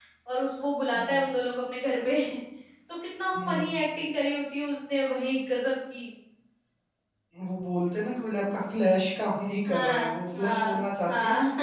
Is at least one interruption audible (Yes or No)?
Yes